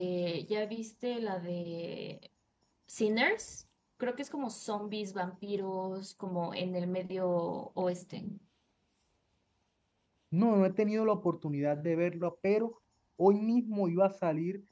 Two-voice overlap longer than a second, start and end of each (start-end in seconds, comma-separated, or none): none